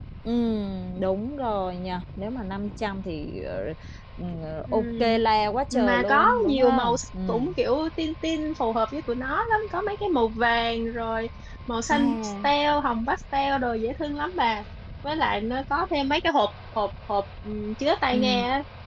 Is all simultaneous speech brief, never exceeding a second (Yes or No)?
No